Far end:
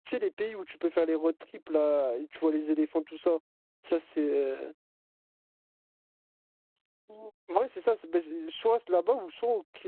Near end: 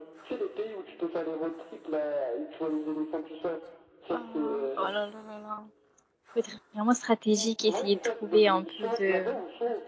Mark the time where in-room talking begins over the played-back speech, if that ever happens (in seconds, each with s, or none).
4.1 s